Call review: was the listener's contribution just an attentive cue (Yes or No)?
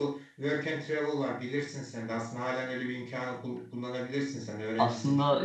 No